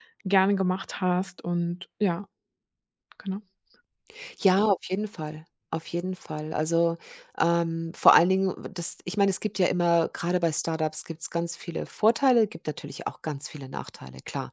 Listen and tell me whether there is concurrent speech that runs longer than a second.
No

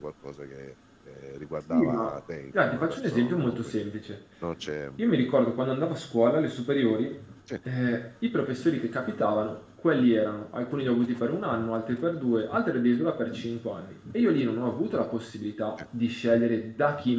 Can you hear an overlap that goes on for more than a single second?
Yes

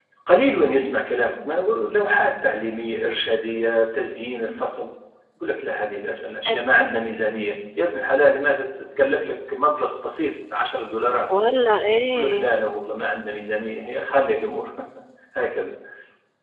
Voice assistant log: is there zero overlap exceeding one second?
Yes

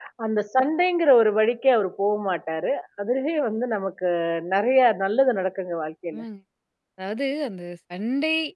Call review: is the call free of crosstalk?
Yes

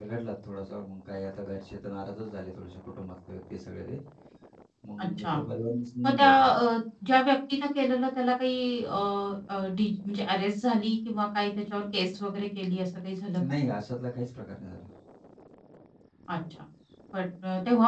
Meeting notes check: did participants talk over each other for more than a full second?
No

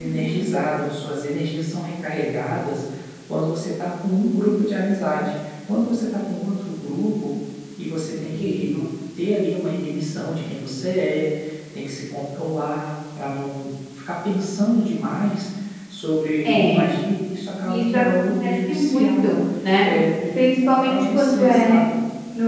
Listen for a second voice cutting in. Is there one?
Yes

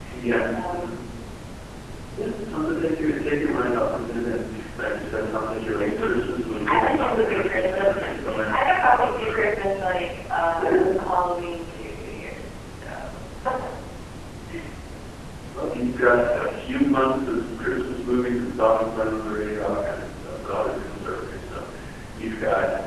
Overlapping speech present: Yes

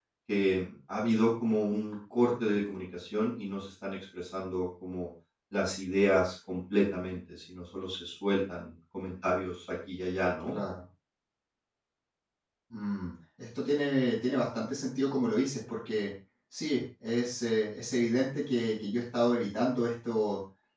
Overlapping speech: No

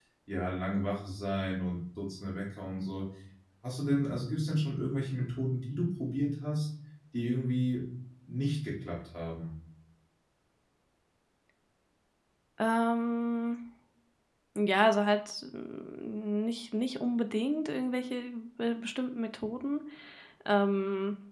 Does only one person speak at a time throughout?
Yes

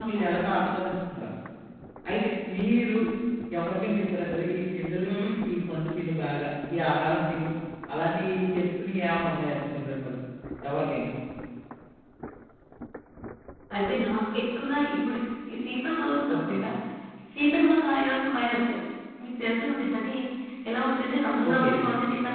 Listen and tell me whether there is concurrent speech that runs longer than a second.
No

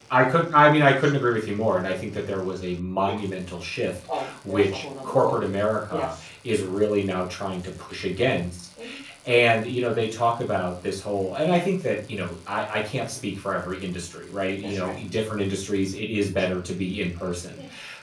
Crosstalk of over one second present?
Yes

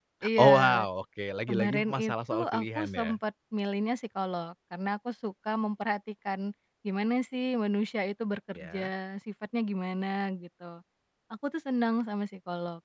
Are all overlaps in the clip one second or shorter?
No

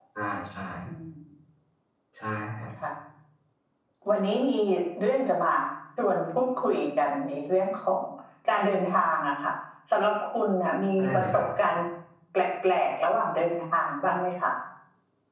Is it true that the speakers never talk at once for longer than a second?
Yes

